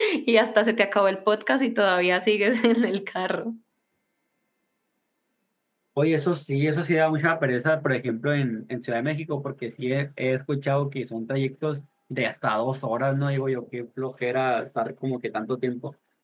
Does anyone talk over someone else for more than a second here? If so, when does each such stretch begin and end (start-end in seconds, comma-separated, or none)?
none